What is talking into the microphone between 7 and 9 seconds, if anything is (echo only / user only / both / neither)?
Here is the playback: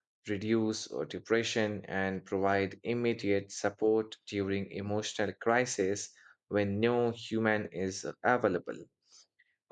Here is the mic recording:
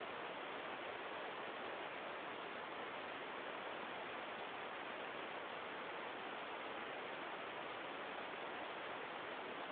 neither